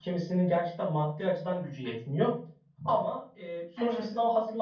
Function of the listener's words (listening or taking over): listening